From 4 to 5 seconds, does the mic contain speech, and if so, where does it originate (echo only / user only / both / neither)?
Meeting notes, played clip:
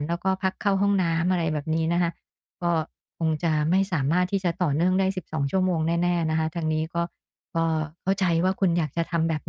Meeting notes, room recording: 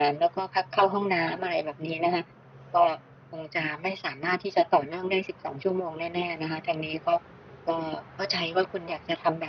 echo only